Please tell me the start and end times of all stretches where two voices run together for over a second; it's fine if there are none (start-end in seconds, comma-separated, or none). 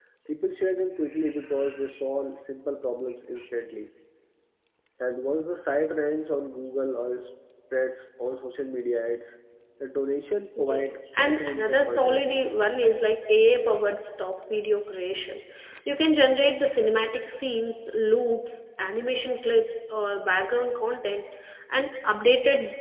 10.6-12.4